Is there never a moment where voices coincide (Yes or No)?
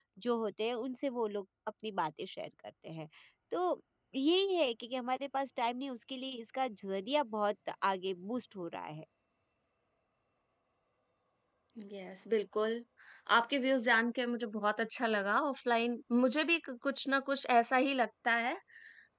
Yes